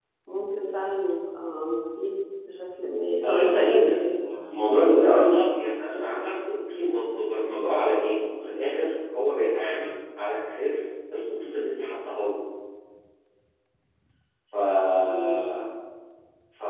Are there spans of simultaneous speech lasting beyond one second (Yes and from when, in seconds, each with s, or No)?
Yes, from 3.2 s